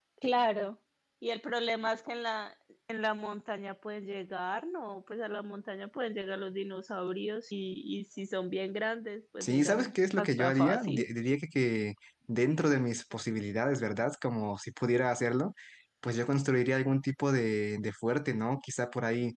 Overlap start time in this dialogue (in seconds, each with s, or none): 9.4 s